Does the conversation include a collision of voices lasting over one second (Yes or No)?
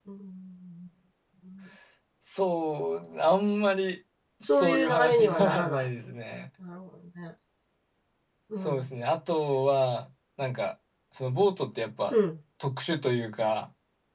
Yes